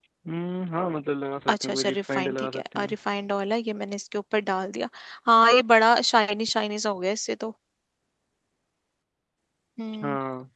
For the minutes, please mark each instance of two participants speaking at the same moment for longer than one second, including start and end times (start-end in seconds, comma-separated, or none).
1.5-2.9